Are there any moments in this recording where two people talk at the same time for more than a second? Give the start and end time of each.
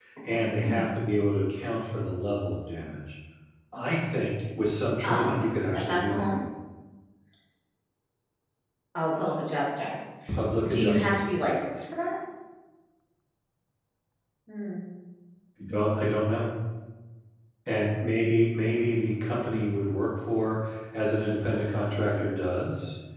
5.0-6.3

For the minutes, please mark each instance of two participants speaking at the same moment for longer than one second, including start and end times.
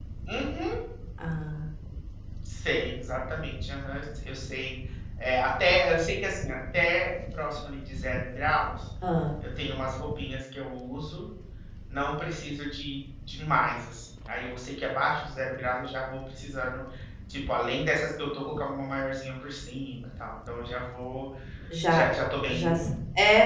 none

